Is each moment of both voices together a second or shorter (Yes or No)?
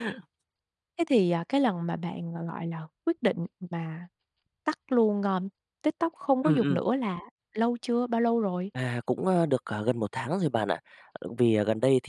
Yes